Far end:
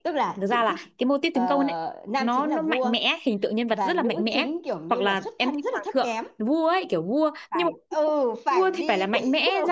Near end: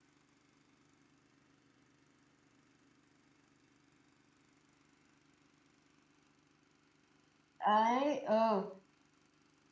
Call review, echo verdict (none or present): none